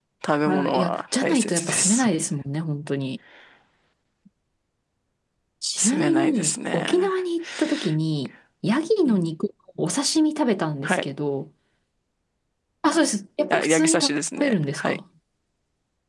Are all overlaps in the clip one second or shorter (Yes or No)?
No